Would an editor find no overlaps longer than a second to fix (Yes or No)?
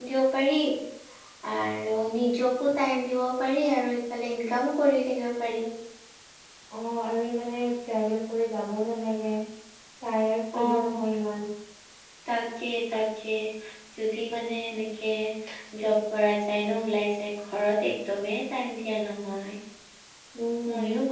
Yes